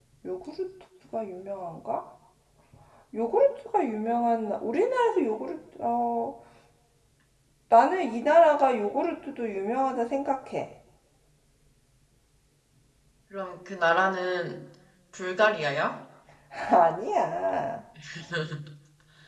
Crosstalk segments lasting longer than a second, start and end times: none

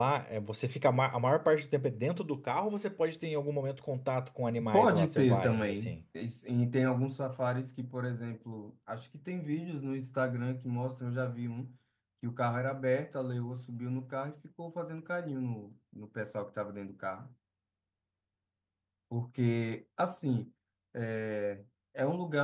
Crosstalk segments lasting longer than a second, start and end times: 4.7-6.0

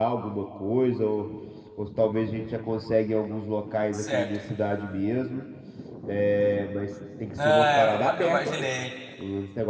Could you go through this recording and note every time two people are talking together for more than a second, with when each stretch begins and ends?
7.4-8.7

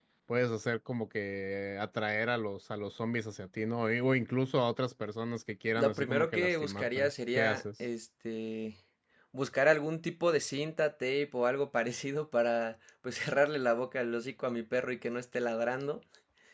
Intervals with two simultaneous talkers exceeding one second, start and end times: 5.7-7.6

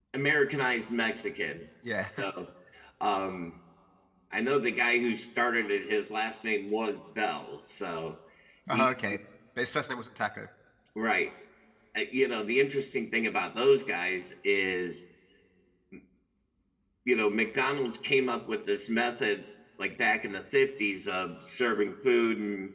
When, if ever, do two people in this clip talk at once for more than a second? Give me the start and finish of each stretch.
none

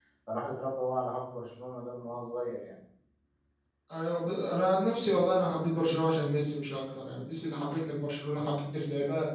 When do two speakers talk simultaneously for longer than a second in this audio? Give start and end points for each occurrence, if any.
none

